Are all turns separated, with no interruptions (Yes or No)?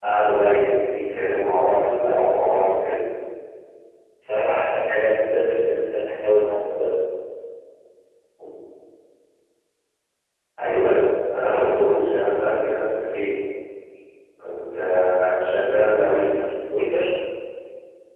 Yes